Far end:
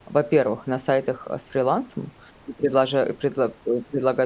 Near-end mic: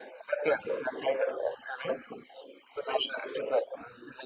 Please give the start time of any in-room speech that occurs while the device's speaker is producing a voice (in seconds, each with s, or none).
none